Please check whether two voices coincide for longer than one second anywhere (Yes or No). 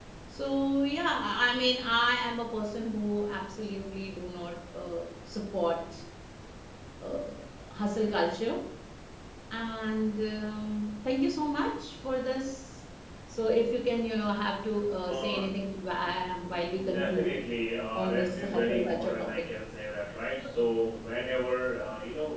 Yes